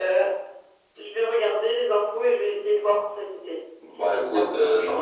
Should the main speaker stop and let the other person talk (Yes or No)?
Yes